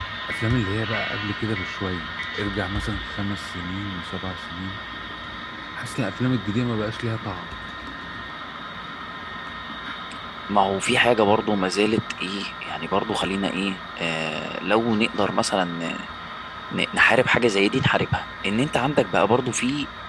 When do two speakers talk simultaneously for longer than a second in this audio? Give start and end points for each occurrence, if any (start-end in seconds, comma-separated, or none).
none